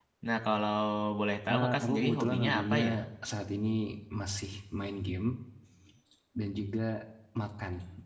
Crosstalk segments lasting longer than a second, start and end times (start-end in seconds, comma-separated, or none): 1.5-2.8